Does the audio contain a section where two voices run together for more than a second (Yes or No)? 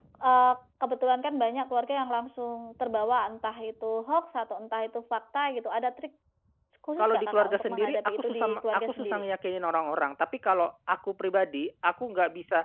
Yes